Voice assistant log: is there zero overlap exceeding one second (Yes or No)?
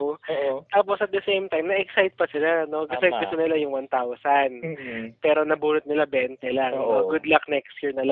Yes